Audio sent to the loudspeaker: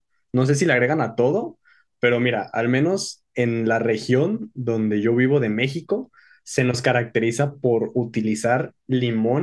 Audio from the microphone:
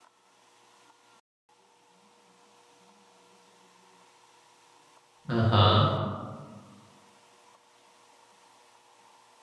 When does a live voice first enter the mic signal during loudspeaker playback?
5.3 s

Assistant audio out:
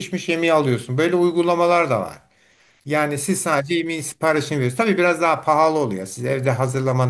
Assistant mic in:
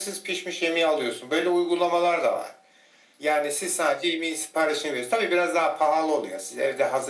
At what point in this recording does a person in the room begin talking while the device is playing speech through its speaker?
none

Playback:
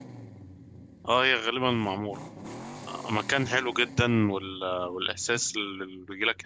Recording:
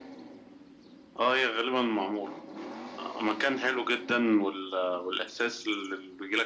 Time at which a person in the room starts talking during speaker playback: none

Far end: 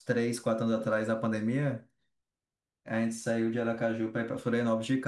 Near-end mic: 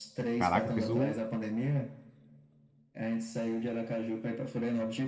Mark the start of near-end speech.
0.4 s

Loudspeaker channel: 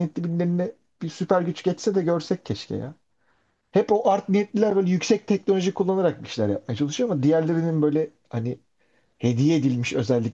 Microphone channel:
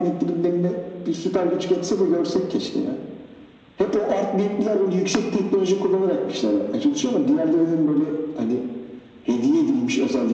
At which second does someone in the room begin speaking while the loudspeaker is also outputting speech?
none

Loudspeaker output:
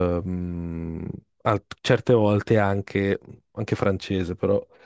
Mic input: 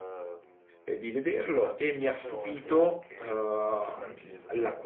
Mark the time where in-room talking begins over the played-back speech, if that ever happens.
0.8 s

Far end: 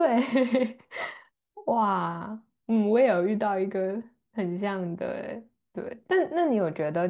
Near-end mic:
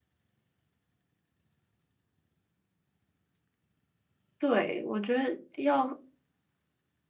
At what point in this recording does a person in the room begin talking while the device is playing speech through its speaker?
4.4 s

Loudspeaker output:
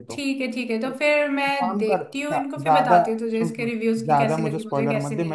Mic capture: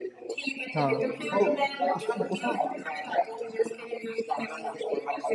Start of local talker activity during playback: 0.8 s

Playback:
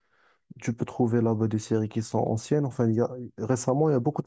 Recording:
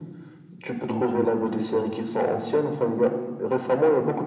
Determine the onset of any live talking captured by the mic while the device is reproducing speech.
0.8 s

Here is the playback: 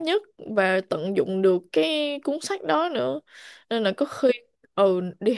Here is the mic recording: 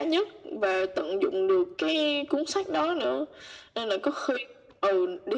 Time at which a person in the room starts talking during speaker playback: none

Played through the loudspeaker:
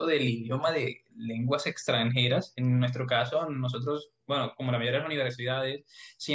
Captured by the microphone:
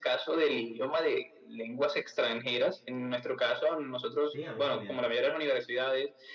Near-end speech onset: 4.3 s

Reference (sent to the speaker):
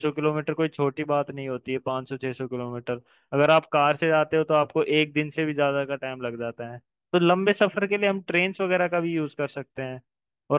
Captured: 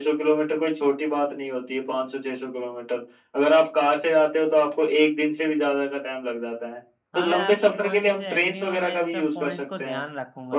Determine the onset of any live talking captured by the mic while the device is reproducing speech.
7.1 s

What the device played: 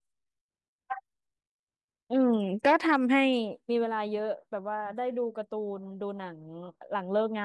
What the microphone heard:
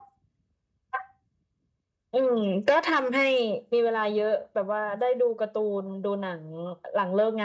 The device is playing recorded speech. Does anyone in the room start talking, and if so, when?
none

